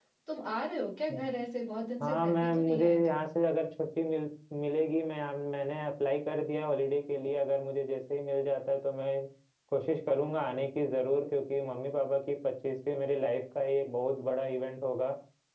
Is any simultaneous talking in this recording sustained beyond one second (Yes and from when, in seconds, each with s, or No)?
Yes, from 2.0 s